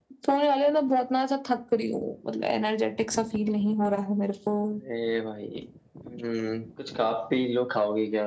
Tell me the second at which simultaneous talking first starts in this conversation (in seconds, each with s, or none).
none